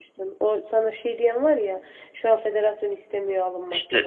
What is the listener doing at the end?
taking over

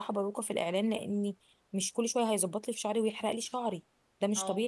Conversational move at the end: listening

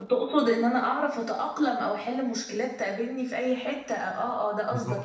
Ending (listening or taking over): taking over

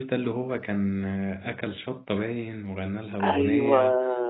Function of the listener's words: listening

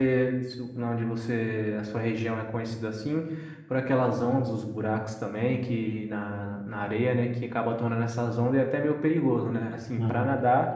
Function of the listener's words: listening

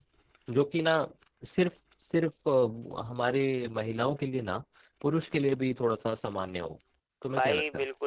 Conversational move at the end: taking over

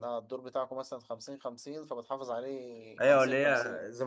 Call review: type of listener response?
taking over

